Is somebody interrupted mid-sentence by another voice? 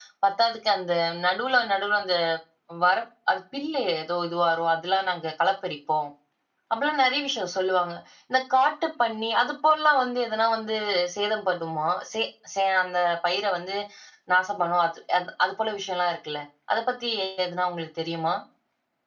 No

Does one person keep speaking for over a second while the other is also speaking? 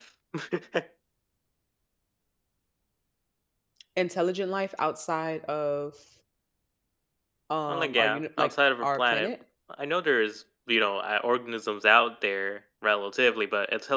Yes, from 7.7 s

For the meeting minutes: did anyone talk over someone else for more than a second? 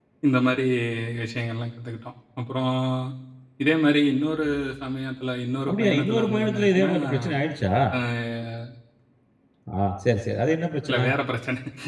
Yes, from 5.7 s

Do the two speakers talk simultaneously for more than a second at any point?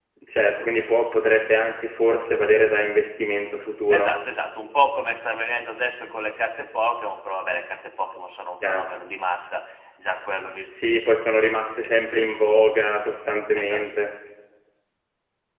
No

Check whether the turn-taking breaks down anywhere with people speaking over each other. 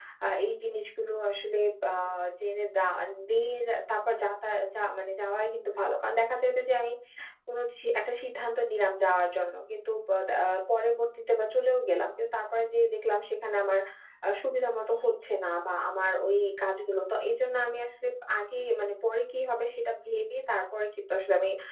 No

